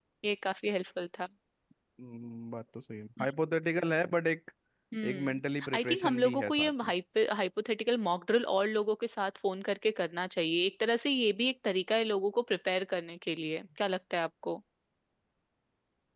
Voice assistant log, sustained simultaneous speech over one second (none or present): present